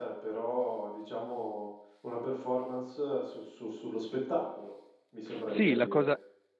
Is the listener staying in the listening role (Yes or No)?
No